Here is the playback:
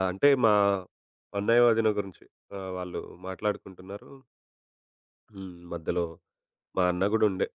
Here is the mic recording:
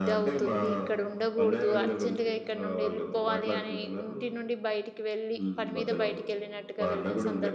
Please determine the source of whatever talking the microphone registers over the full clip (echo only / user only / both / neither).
both